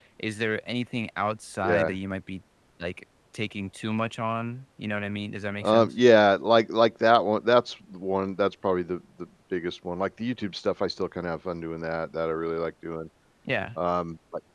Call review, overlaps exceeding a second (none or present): none